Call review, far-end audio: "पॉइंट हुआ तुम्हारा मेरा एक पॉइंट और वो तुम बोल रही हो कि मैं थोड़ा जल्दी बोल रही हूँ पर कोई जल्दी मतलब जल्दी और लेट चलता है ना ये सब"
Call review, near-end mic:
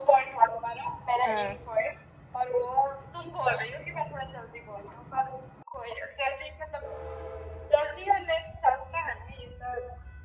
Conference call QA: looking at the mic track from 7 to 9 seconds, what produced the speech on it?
echo only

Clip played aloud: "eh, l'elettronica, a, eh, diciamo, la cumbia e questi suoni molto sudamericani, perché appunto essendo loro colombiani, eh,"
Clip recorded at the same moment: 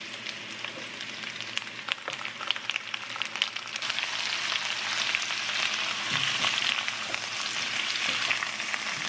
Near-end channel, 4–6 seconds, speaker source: neither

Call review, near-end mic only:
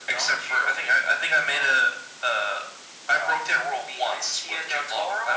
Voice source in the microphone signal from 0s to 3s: echo only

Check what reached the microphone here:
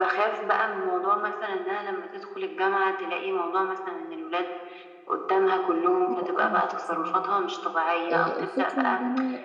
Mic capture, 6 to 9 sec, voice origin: both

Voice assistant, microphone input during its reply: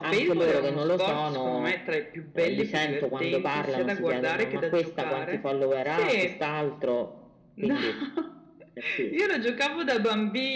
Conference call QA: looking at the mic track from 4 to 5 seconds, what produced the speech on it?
echo only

